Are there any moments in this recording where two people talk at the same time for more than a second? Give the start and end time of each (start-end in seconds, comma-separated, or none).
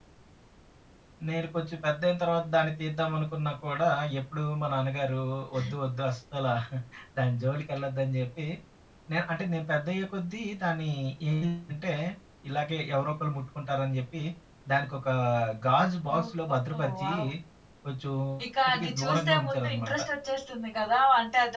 18.7-20.0